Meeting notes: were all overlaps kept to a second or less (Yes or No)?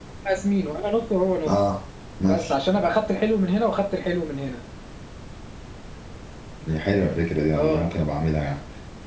Yes